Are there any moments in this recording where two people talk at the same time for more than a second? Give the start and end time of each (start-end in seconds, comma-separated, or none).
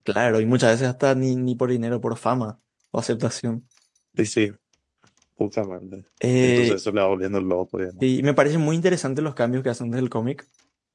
none